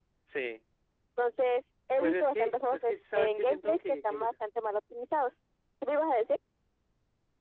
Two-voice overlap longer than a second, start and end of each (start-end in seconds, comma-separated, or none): 2.0-4.3